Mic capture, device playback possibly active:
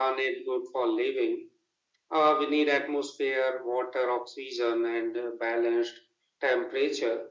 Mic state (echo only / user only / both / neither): echo only